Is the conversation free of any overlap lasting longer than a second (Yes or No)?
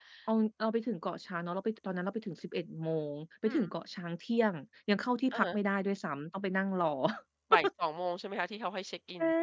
Yes